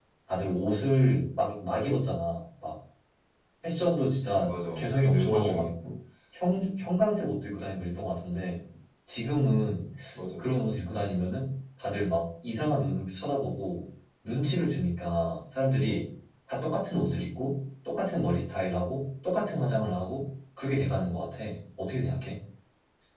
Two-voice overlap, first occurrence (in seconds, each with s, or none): 4.3 s